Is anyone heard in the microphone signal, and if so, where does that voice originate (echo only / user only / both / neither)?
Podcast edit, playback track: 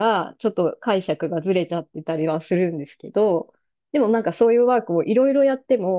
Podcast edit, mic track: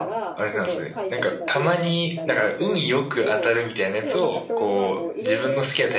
both